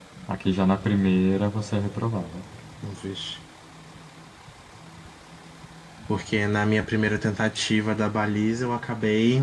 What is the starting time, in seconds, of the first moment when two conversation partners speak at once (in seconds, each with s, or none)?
none